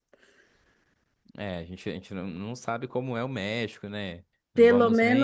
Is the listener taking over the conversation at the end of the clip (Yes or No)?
Yes